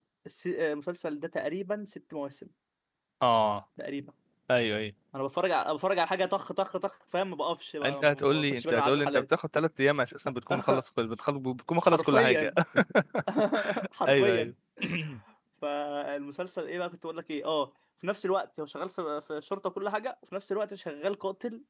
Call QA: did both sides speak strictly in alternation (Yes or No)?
No